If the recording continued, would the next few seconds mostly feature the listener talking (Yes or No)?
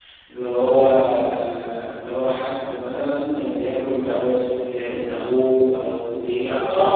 Yes